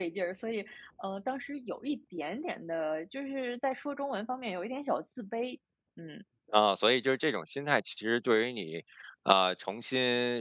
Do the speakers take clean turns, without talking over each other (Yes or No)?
Yes